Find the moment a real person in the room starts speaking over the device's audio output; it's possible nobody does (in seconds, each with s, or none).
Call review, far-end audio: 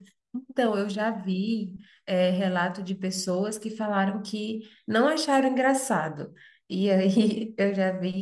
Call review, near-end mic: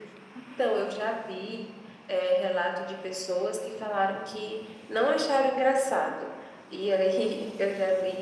none